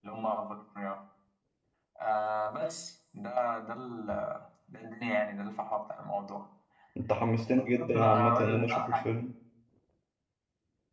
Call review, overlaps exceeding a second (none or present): present